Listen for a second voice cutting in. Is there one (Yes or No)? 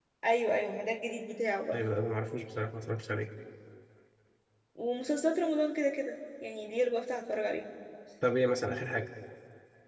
No